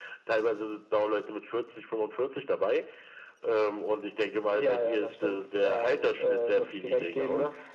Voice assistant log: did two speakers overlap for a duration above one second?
Yes, from 4.5 s

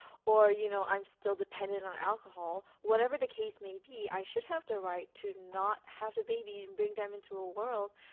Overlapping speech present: No

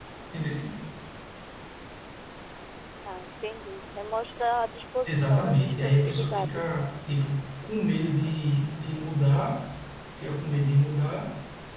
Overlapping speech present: Yes, from 5.1 s

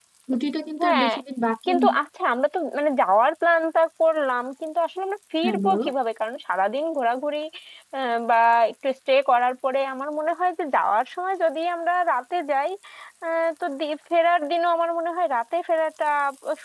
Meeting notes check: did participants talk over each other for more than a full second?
No

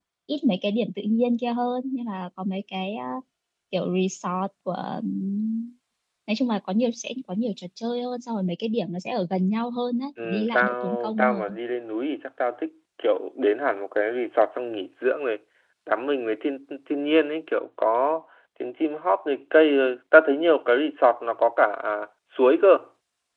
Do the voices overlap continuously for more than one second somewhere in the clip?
Yes, from 10.2 s

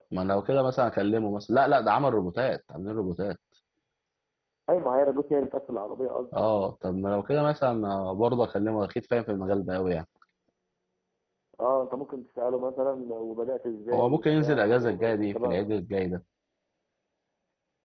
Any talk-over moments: Yes, from 13.9 s

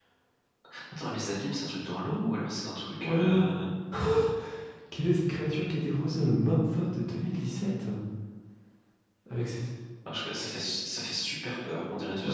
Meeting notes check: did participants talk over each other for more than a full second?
No

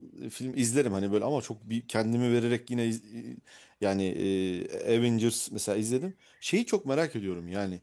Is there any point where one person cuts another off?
No

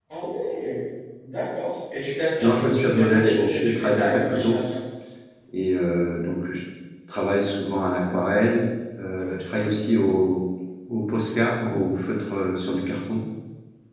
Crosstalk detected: Yes, from 2.4 s

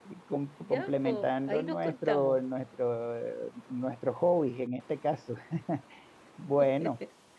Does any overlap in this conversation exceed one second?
Yes, from 0.6 s

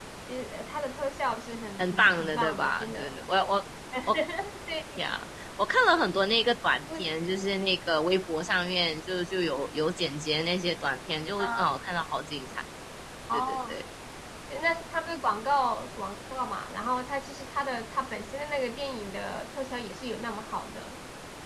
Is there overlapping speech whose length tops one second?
Yes, from 1.8 s

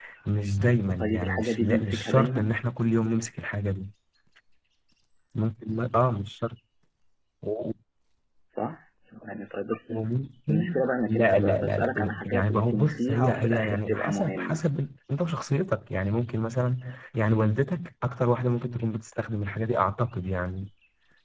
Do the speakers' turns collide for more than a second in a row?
Yes, from 1.0 s

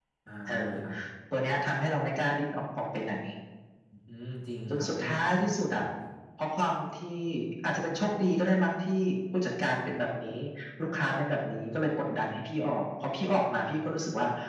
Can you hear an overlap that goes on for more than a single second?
No

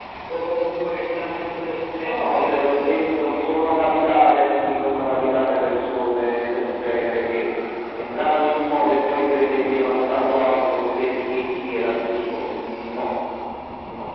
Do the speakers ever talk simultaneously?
Yes, from 2.0 s

